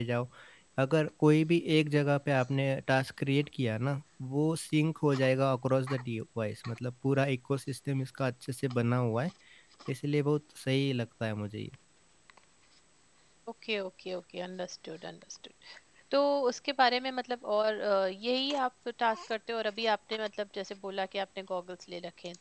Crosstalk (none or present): none